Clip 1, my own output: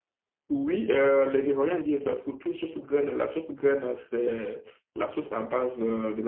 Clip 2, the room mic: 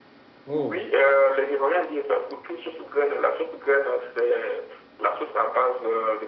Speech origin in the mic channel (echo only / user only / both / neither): both